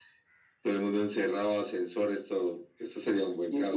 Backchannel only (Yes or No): No